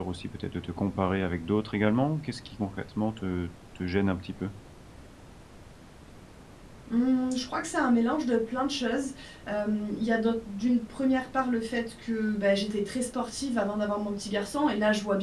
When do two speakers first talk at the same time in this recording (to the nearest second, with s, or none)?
none